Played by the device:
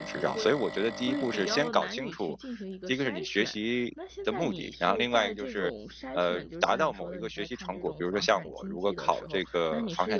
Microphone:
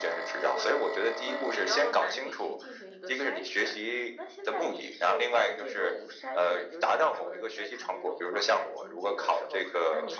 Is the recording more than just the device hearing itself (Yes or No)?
No